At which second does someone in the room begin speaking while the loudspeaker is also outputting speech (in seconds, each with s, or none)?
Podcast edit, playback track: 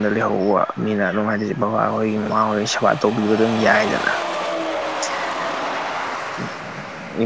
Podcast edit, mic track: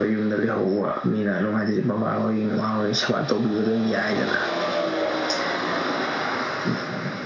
none